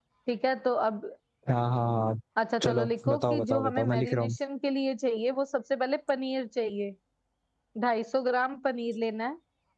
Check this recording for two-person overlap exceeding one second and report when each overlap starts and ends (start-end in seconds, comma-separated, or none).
2.6-4.3